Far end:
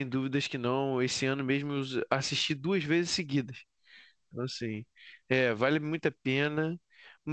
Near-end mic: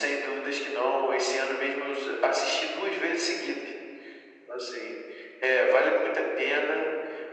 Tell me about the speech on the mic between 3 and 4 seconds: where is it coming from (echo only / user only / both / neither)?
echo only